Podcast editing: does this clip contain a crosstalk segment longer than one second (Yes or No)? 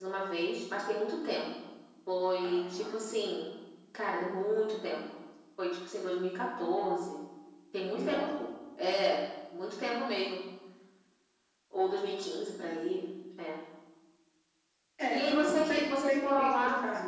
Yes